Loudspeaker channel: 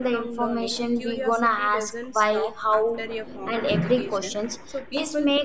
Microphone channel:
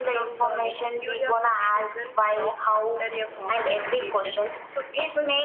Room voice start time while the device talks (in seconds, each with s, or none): none